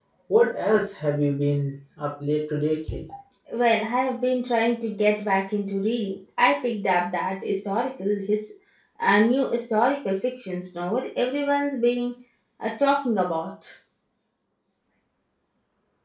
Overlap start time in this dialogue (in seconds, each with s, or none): none